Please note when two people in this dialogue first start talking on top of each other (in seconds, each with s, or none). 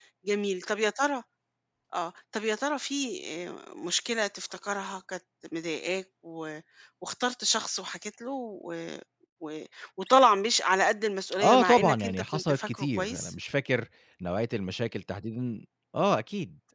11.4 s